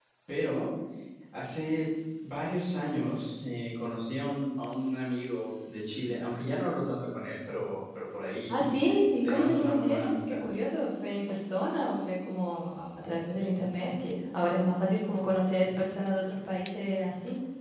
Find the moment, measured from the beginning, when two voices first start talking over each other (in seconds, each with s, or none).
8.5 s